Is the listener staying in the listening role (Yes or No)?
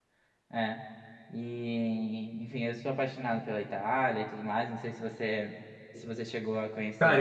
No